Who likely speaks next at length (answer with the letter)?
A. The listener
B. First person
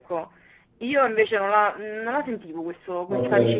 A